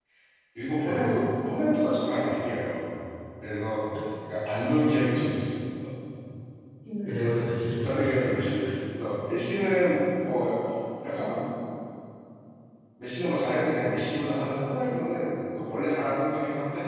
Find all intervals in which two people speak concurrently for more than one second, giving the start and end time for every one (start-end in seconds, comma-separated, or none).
7.1-8.5